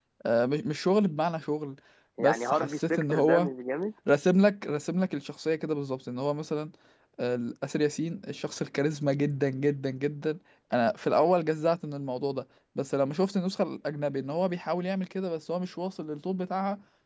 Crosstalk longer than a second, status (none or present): present